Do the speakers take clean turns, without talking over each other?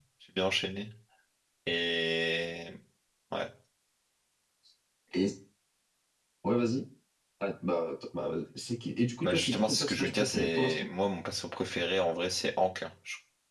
No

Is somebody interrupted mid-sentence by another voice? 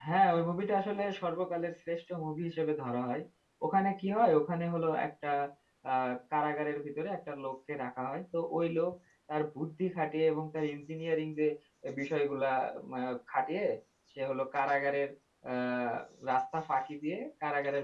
No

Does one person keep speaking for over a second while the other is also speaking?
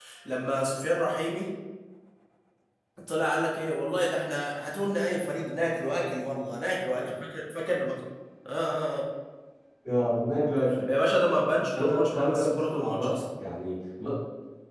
Yes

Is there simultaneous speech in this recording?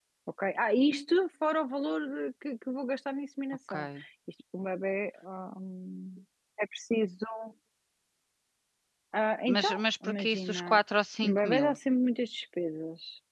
Yes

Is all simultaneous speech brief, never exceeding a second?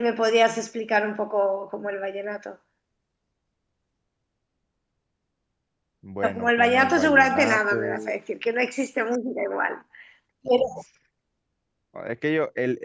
No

